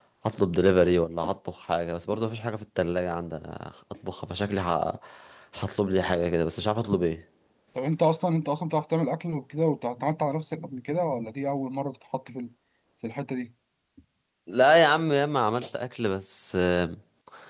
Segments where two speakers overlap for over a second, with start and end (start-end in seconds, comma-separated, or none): none